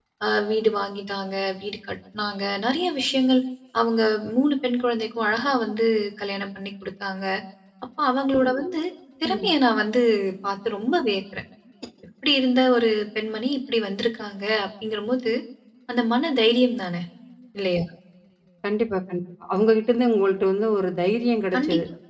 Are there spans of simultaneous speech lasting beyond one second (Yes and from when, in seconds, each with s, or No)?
No